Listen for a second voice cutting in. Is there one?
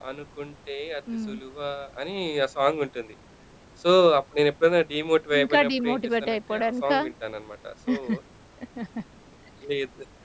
Yes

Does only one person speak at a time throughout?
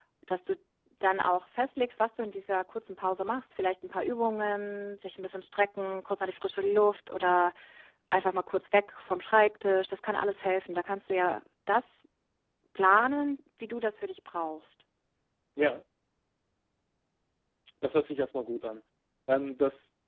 Yes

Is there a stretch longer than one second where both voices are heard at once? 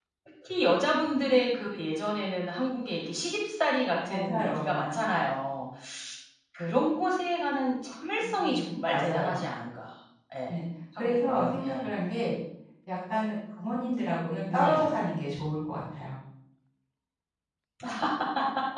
Yes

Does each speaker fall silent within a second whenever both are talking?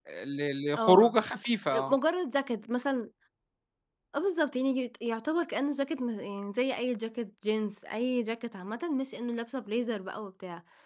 Yes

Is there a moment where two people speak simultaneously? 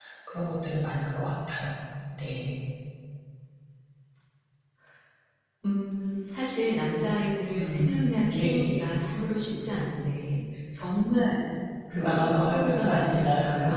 Yes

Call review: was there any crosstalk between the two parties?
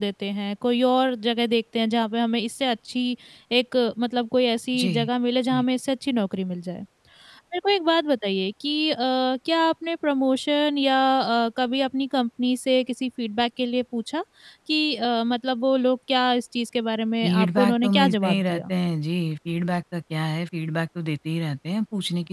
Yes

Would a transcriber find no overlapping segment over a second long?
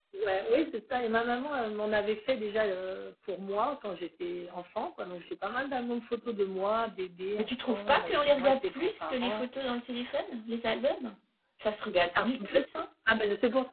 No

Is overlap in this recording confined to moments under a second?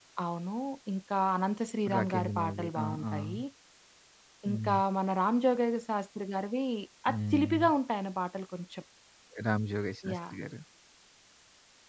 No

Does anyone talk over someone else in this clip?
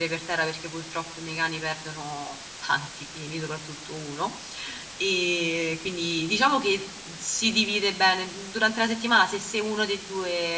No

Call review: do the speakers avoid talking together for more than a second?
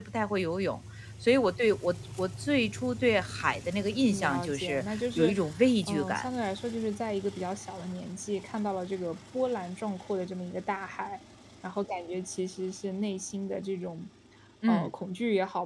No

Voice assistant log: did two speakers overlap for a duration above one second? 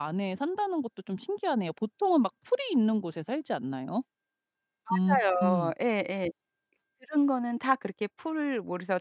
No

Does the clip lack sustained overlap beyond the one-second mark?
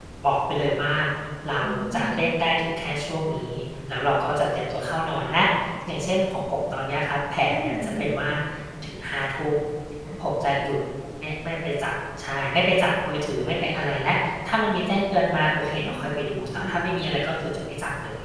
No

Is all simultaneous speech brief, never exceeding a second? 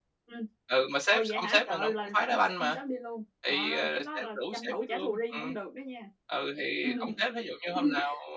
No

